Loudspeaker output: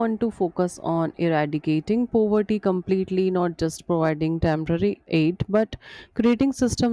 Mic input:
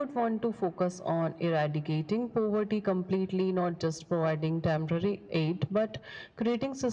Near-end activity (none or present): none